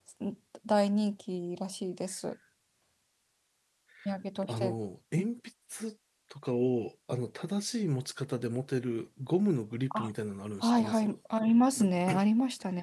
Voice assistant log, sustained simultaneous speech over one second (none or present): none